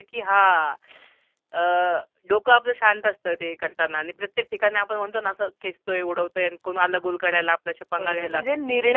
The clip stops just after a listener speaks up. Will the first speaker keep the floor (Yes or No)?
No